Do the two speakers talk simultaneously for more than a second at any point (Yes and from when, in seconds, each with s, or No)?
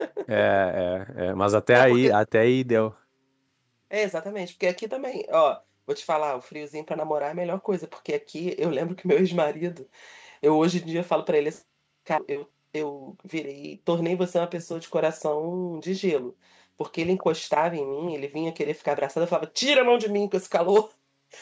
No